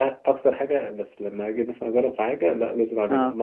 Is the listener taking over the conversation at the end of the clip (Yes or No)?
No